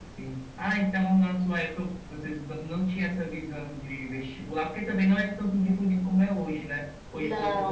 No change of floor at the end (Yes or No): Yes